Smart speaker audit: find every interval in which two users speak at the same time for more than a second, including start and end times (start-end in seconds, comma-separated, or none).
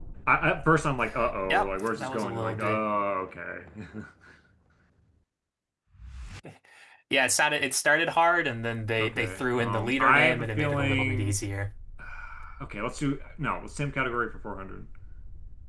1.5-2.8, 9.0-11.3